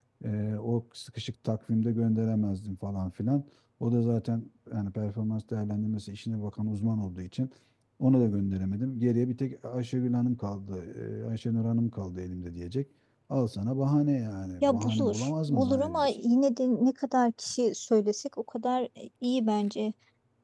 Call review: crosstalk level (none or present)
present